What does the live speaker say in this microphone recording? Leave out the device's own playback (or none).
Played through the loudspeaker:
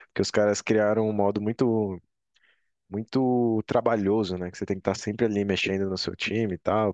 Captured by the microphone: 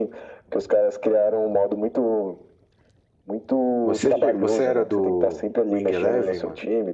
Você, che- você era do Wing Eleven, mano?